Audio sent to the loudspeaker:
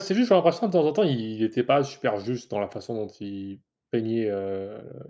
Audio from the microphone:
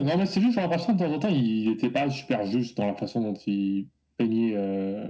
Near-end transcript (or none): none